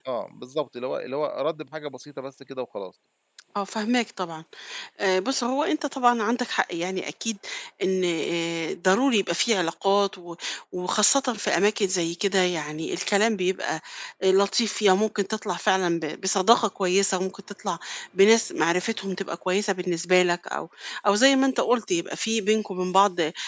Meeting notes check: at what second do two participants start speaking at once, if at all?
none

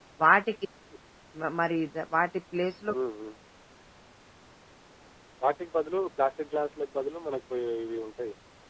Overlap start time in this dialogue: none

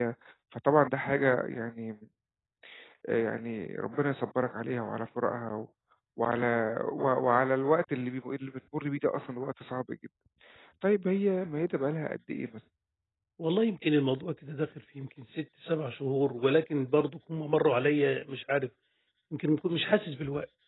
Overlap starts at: none

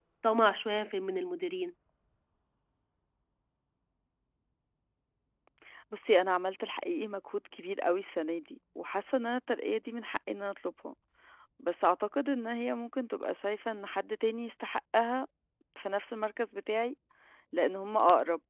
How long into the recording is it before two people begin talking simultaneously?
none

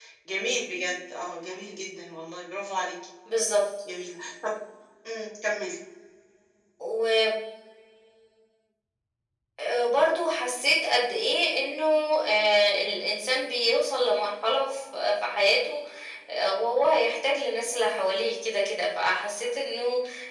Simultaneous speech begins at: none

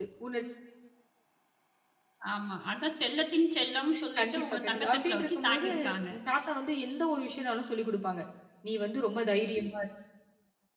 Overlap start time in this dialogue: 4 s

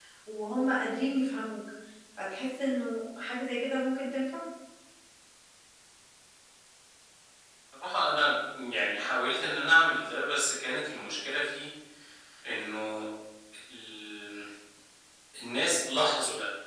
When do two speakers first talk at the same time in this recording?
none

